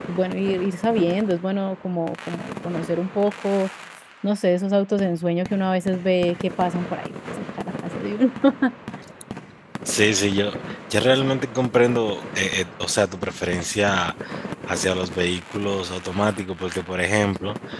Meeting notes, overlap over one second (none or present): none